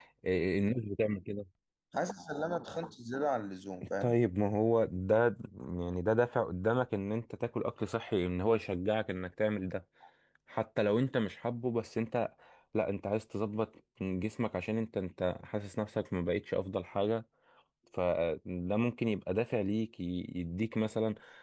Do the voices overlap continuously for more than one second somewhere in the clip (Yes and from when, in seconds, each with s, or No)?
No